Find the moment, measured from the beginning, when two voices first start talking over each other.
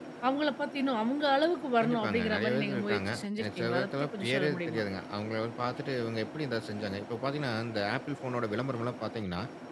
2 s

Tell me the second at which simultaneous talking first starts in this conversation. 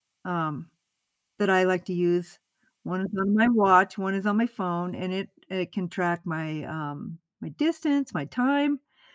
none

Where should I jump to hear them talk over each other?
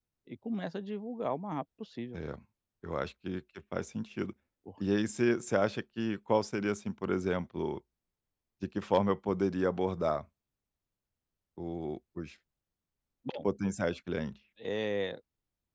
none

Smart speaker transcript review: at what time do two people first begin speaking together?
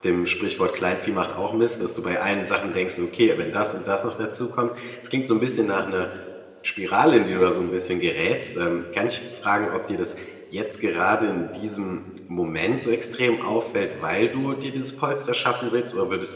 none

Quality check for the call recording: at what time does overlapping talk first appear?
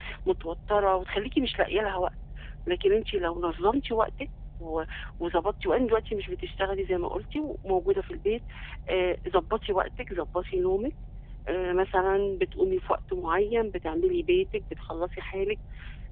none

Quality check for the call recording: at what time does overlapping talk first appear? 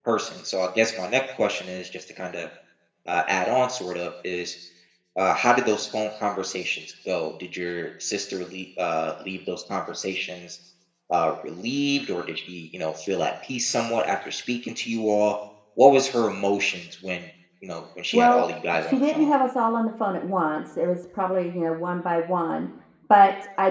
18 s

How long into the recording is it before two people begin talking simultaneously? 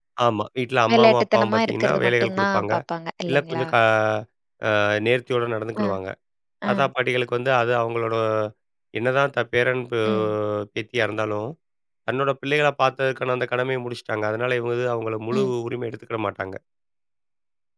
1 s

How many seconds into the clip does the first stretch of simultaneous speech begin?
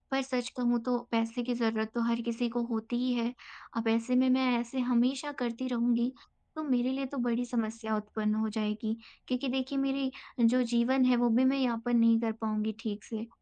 none

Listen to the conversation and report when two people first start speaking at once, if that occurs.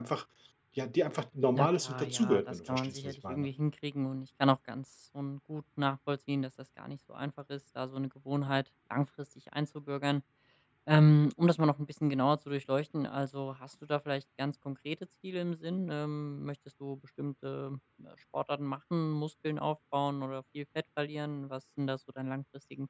2 s

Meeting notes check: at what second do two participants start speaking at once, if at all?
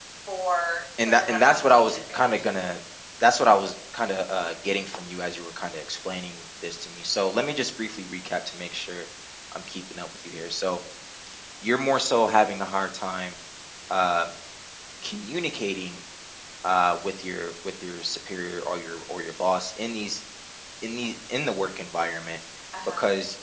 1 s

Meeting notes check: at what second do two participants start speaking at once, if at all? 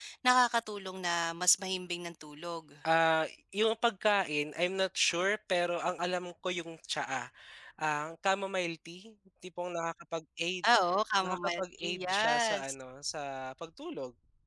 11 s

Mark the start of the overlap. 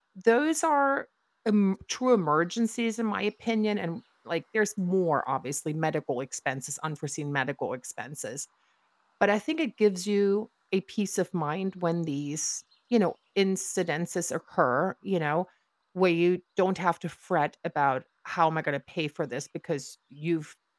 none

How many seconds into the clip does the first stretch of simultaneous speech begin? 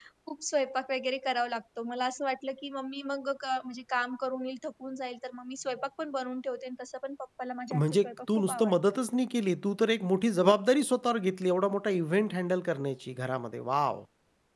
8 s

